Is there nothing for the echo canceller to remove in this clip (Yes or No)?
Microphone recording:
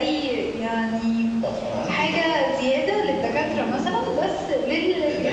No